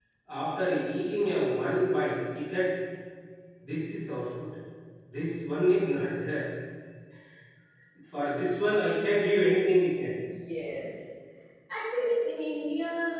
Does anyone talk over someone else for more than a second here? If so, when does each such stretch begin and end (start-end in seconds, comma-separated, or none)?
none